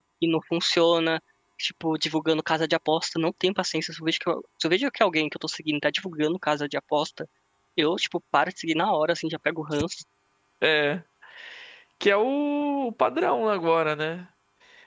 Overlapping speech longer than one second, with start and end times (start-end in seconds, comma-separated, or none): none